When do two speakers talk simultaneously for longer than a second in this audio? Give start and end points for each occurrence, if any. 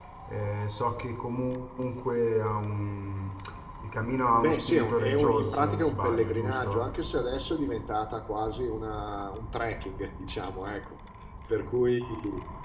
4.4-6.9

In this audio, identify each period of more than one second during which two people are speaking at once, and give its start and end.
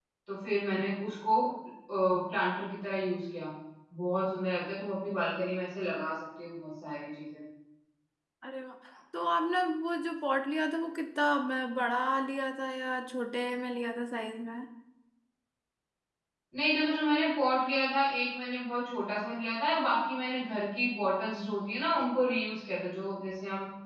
none

